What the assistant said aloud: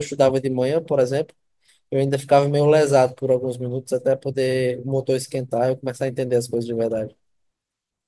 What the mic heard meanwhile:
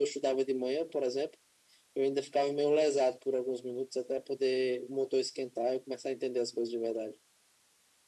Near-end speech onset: none

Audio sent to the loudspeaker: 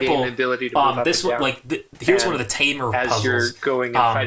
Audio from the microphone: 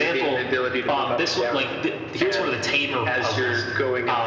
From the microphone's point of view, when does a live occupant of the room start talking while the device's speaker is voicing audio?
none

